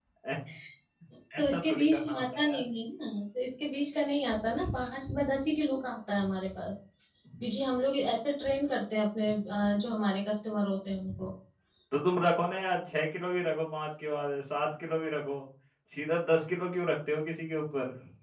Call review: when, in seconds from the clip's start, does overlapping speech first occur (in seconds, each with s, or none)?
1.4 s